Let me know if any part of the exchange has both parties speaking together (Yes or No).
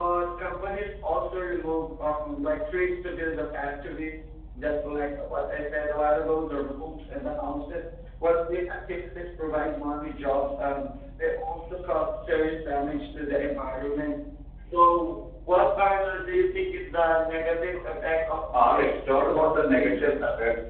Yes